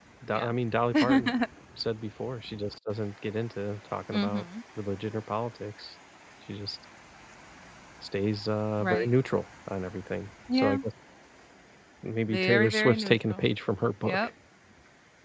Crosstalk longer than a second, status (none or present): present